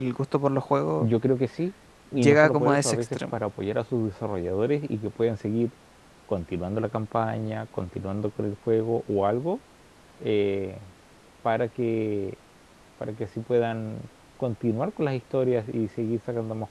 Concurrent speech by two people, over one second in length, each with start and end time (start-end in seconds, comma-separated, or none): 2.1-3.3